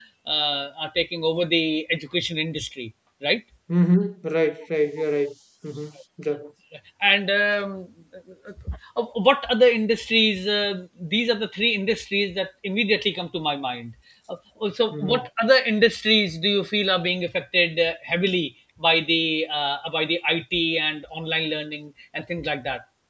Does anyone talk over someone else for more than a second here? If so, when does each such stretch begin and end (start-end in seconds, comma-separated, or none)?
none